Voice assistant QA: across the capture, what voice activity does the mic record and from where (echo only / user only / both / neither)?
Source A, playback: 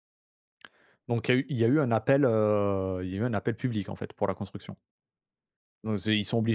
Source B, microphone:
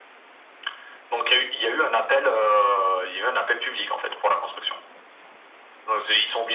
echo only